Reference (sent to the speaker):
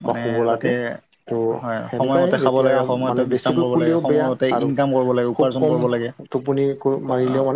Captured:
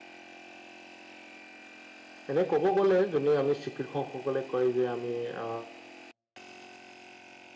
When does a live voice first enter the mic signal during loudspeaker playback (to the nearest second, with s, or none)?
2 s